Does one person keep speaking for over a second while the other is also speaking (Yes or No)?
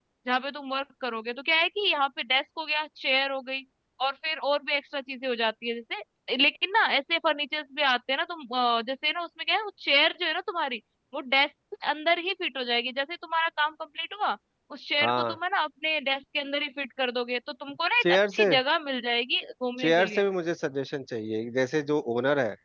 No